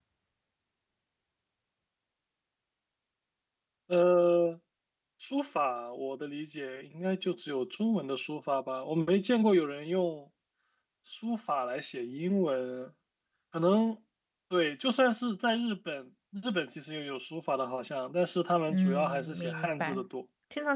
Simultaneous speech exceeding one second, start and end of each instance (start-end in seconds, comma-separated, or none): 18.7-20.1